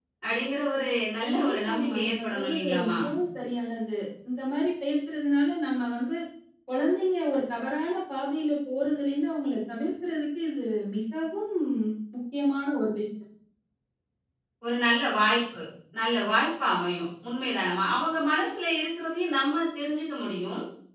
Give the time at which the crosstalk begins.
1 s

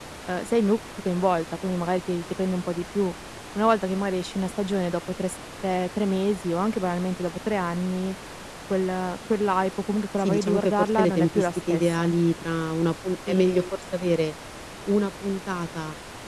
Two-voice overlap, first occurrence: 10 s

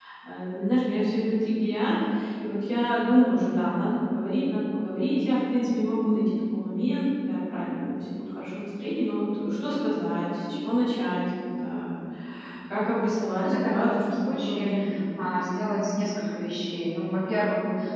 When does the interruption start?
13 s

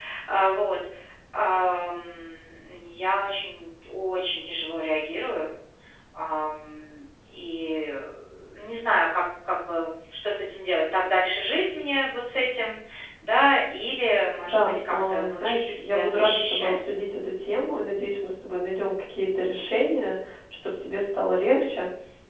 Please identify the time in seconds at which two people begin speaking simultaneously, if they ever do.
14 s

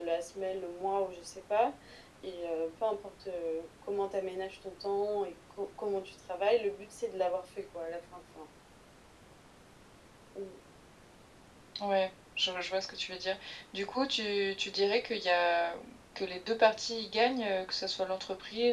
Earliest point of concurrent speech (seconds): none

